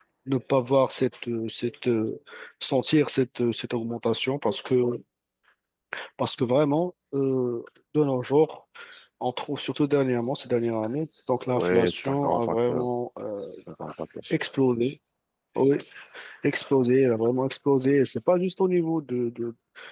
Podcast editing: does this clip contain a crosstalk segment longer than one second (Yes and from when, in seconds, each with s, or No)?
Yes, from 11.5 s